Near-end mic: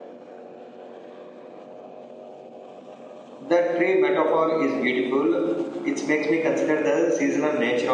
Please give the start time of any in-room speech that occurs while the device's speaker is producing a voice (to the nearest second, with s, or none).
3 s